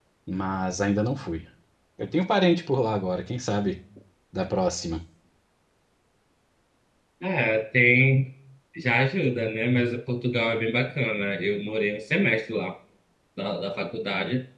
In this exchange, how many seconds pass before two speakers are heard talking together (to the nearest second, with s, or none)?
none